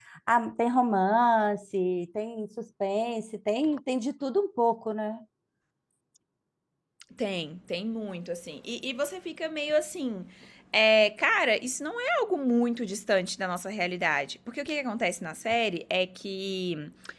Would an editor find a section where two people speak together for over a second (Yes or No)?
No